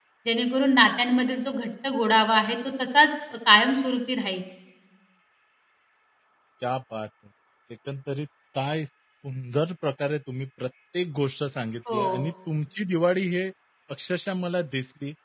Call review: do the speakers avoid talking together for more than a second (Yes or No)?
Yes